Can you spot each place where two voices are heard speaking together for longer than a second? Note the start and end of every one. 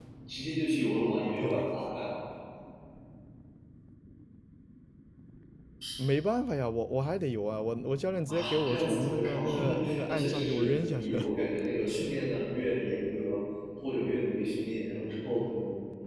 8.3-11.3

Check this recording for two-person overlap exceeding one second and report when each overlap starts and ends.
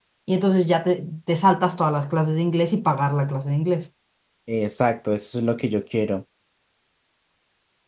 none

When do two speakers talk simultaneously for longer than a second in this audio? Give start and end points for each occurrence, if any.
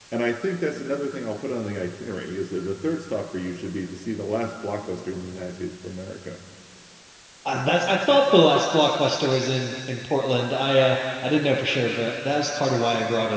none

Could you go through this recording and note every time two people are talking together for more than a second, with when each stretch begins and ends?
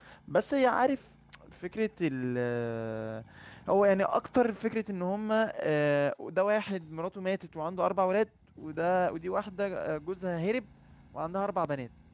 none

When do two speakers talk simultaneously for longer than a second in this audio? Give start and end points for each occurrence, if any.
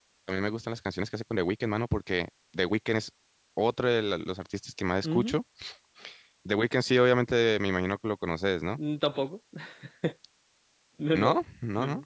none

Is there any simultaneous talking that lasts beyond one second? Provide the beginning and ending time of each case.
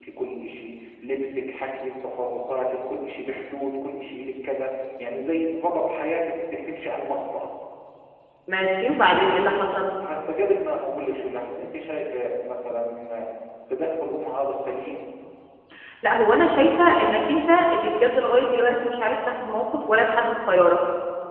none

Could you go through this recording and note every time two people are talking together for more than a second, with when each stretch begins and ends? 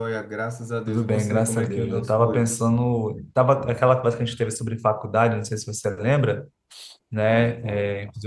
0.9-2.7

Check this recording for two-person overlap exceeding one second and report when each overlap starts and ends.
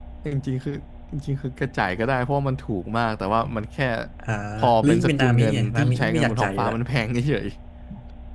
4.8-6.8

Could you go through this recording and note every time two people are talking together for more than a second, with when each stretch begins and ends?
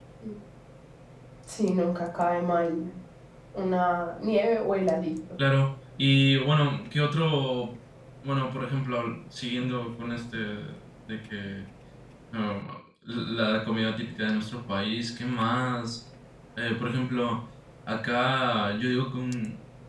none

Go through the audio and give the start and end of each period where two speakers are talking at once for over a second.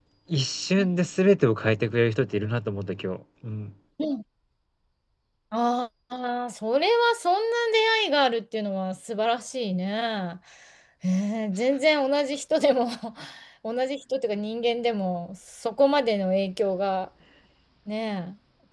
none

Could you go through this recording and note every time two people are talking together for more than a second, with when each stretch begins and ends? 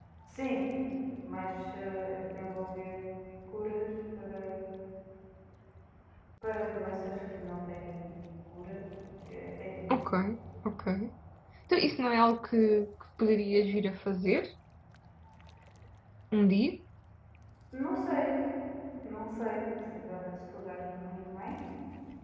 none

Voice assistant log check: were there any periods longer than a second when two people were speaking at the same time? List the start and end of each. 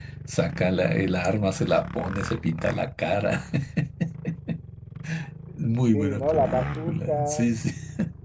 5.9-7.5

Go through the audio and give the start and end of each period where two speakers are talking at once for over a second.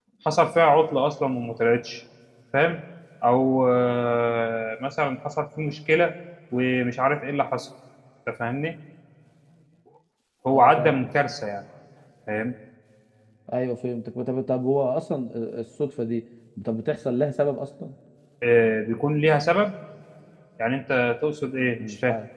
none

